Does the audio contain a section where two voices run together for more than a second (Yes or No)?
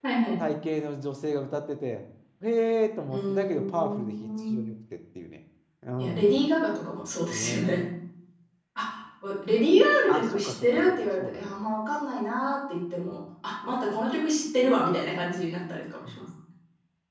Yes